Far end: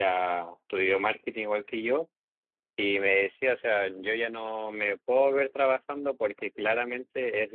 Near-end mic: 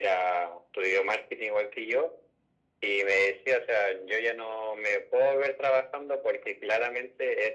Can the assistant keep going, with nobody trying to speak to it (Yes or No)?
Yes